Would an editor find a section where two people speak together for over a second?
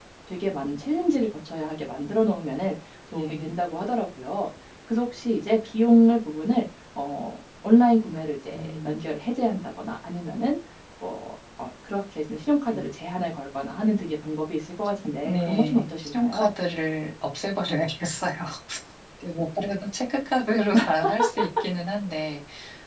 Yes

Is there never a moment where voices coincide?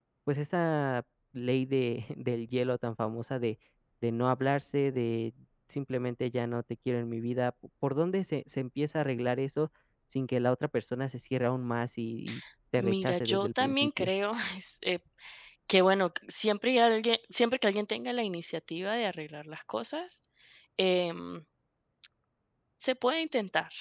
No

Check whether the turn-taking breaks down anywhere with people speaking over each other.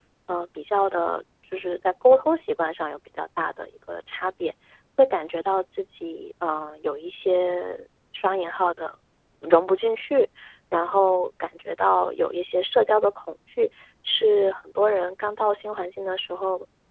No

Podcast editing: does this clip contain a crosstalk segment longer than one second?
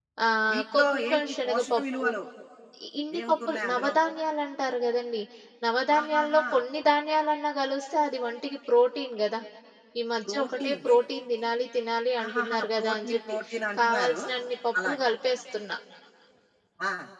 Yes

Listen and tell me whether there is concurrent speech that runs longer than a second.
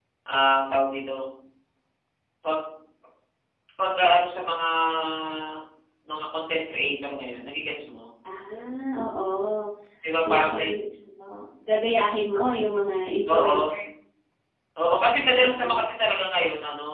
No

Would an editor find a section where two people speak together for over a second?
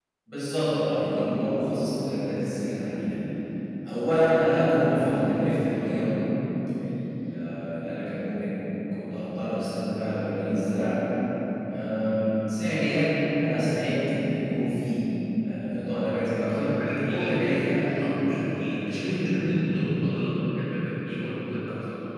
No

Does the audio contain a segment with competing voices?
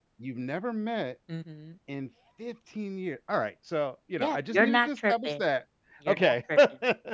Yes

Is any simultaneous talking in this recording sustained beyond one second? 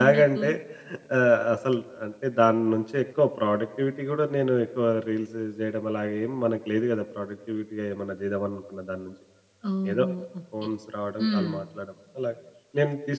No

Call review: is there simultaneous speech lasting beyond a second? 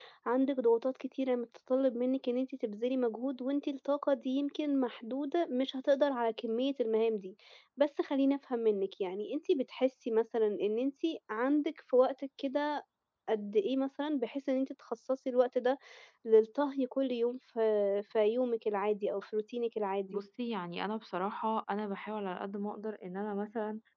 No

